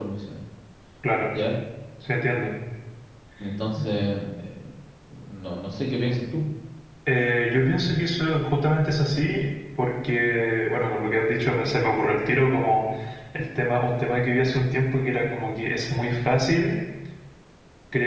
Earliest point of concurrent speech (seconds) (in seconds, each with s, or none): none